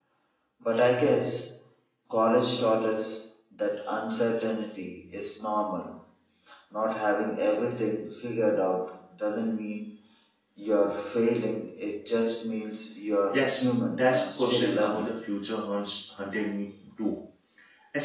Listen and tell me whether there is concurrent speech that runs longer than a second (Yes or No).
Yes